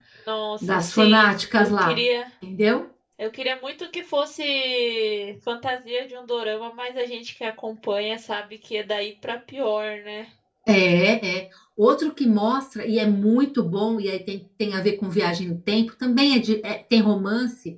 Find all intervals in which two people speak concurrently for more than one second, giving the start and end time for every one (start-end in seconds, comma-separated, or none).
0.6-2.0